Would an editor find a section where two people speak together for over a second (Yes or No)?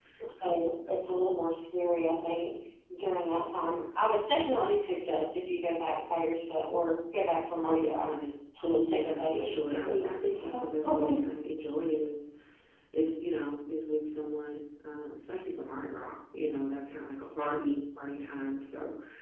Yes